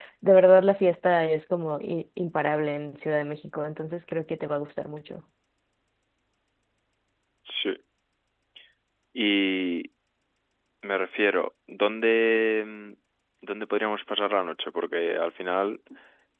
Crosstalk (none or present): none